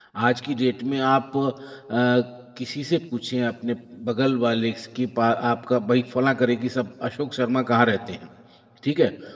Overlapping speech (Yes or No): No